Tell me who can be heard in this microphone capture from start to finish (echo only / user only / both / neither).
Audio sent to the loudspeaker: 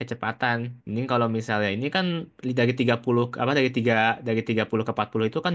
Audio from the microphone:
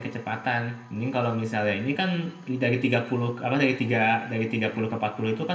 echo only